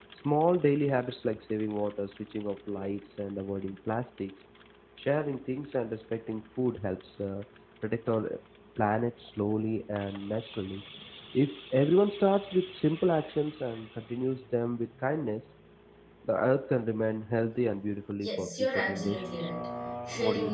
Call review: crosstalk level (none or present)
present